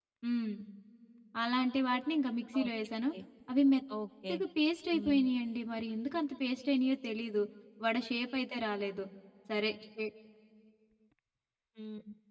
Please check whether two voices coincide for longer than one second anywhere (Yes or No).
No